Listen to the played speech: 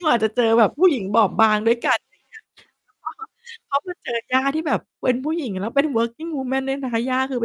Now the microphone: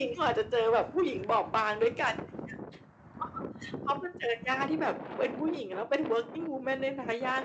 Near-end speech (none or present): none